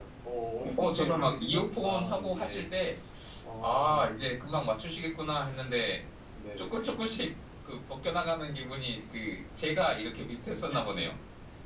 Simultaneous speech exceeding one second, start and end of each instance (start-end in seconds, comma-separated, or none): 0.8-2.6